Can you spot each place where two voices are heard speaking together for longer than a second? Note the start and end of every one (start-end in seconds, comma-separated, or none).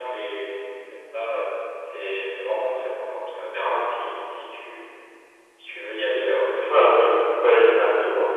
none